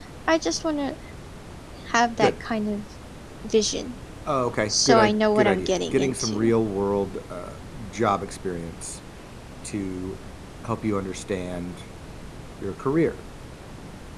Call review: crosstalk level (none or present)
present